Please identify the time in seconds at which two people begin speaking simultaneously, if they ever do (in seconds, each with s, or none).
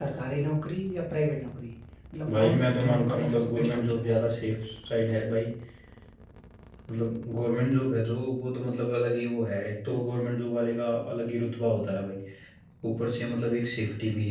2.4 s